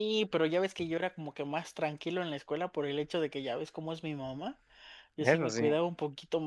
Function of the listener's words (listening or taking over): listening